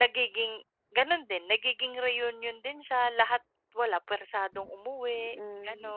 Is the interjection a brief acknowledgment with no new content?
No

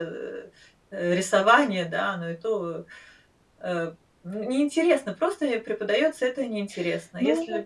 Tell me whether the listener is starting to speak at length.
No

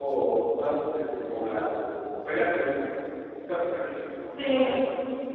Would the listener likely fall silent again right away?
No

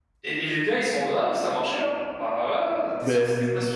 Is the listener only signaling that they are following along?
Yes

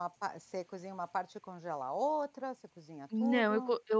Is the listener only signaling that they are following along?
No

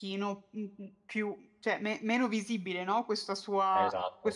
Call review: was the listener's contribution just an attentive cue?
Yes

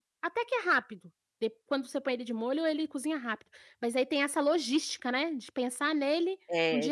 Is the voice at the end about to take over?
Yes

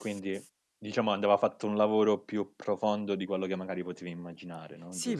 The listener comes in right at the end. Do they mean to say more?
Yes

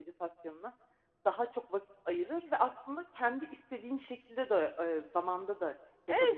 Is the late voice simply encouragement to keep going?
No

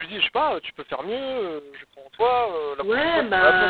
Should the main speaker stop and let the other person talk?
Yes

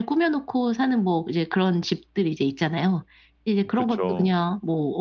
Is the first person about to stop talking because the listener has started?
No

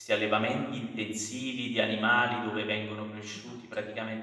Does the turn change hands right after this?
No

